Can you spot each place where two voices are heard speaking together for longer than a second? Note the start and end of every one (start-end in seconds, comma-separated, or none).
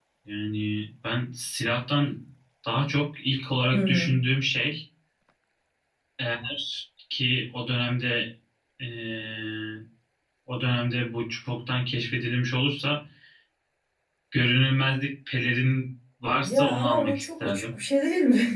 16.4-17.6